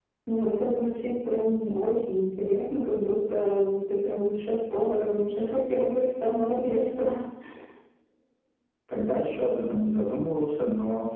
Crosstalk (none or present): none